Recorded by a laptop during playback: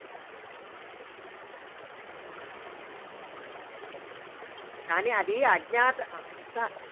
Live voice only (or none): కానీ అది అజ్ఞాత అంత